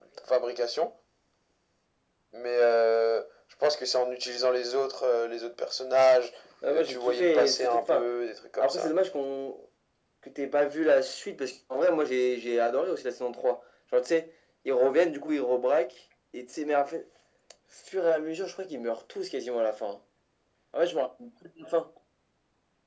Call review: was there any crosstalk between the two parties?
Yes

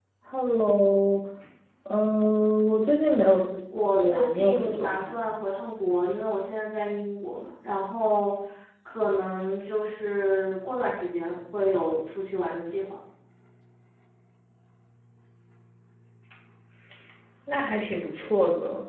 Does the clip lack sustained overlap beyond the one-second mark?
No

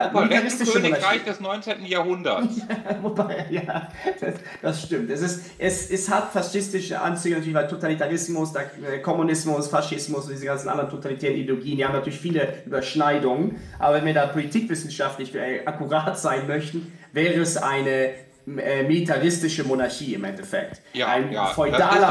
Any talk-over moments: Yes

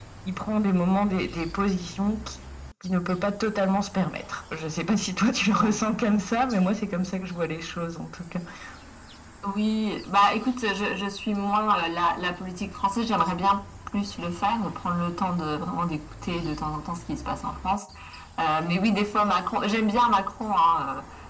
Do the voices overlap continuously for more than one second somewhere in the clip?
No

